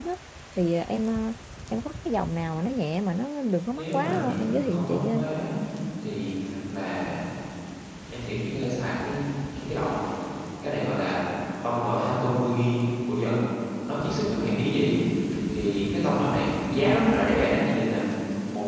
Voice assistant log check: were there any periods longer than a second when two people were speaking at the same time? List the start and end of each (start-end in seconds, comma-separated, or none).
3.7-5.3